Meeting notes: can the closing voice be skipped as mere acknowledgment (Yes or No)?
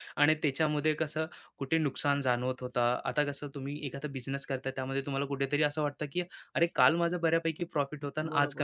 No